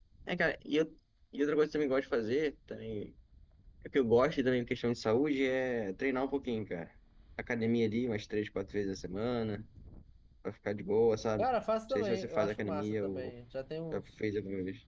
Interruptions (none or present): present